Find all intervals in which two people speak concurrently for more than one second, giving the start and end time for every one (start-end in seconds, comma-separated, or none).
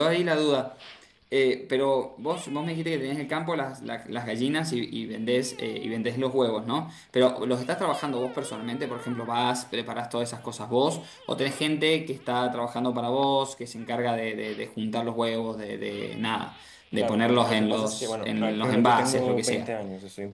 17.0-19.7